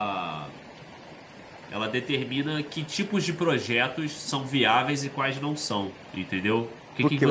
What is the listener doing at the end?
taking over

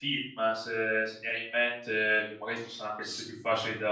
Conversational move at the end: listening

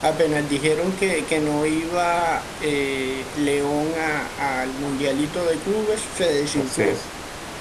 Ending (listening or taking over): taking over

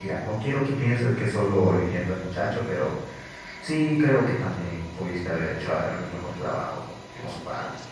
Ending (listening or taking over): taking over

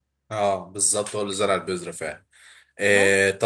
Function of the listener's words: listening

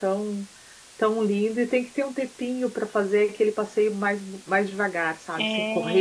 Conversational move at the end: listening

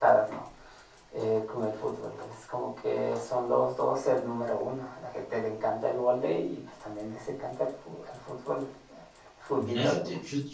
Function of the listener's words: taking over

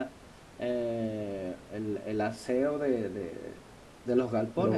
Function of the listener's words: listening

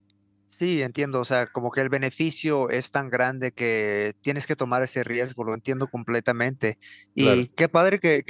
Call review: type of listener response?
listening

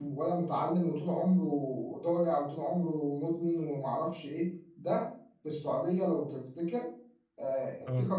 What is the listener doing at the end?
listening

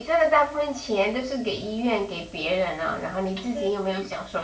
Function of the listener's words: listening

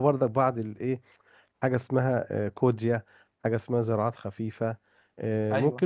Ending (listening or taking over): listening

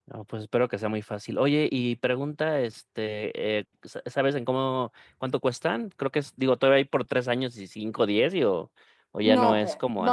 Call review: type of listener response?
taking over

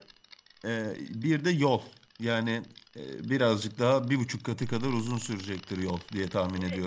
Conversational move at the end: taking over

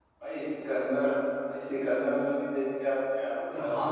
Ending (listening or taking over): taking over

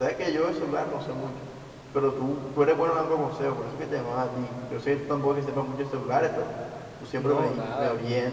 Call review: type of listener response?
listening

